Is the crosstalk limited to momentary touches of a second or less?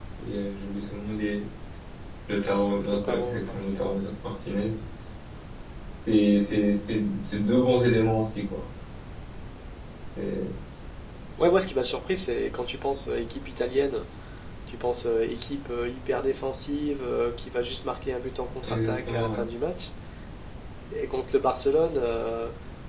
No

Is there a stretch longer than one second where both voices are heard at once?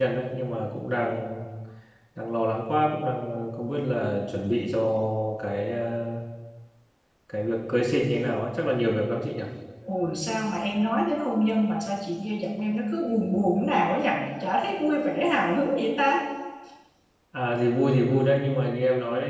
No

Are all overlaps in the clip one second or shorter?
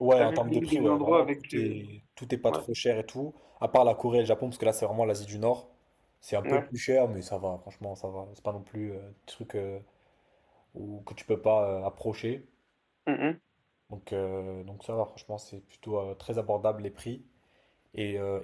No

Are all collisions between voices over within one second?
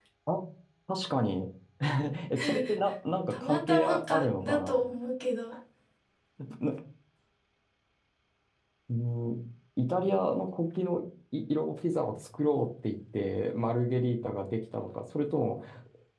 No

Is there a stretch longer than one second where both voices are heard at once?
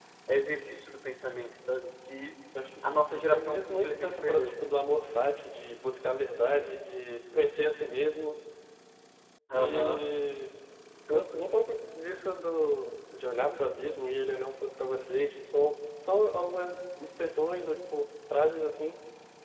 Yes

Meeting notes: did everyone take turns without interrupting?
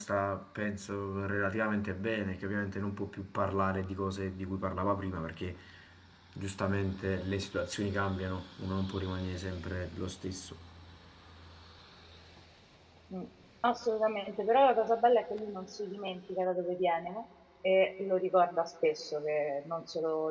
Yes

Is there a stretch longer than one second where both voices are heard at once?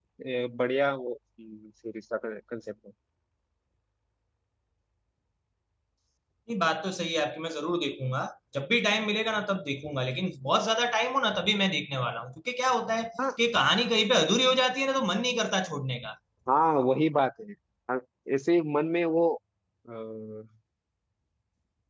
No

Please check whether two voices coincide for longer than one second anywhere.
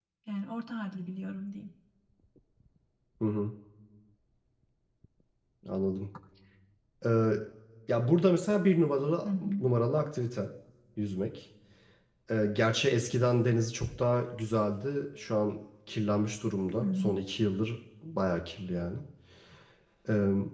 No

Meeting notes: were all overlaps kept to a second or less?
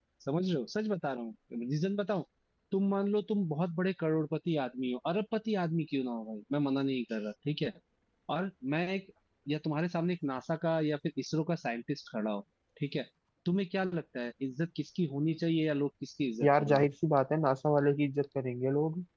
Yes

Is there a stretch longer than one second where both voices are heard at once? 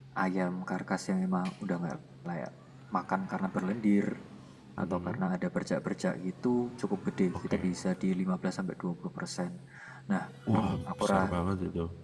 No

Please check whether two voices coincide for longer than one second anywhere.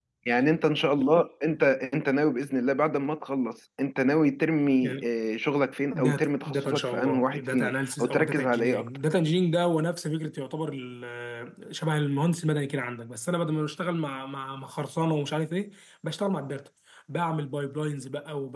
Yes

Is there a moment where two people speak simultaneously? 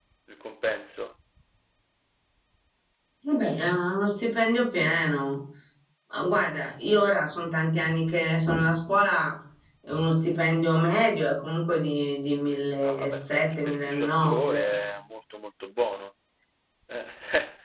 Yes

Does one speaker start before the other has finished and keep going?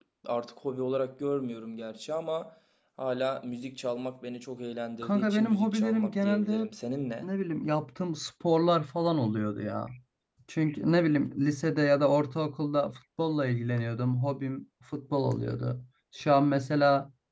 Yes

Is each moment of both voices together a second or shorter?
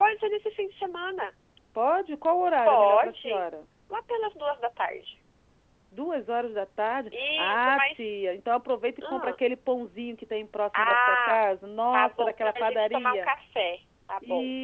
No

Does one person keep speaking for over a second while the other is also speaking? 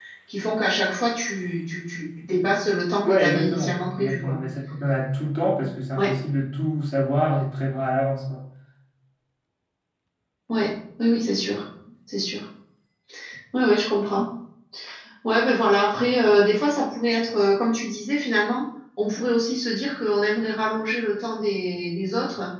Yes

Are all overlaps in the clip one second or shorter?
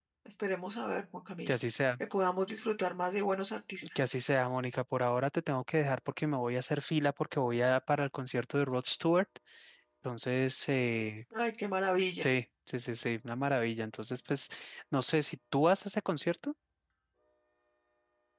Yes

